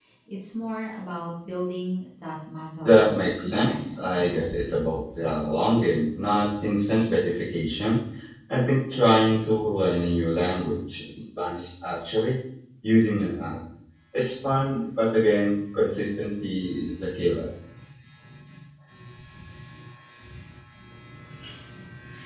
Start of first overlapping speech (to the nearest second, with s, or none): 3 s